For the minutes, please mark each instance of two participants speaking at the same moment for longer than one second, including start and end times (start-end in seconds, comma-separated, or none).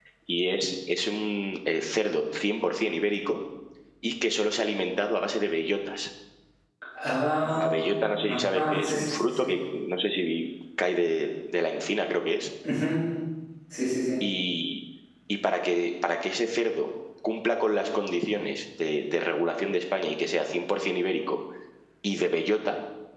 8.3-9.5